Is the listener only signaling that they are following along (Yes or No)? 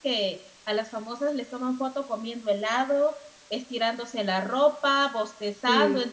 Yes